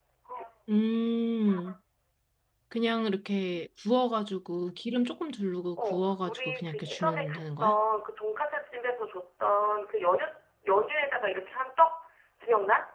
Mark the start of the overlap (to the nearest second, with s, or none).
6 s